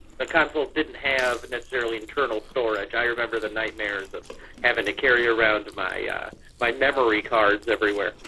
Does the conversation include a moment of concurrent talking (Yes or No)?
No